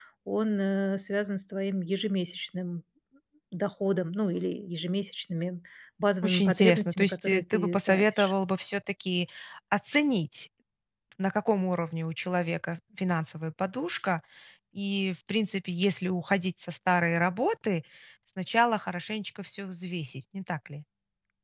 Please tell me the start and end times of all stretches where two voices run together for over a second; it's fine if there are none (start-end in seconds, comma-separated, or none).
6.2-8.3